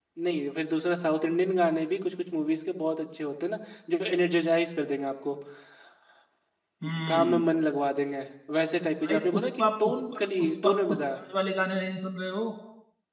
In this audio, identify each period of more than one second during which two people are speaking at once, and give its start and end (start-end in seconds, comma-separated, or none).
9.0-11.2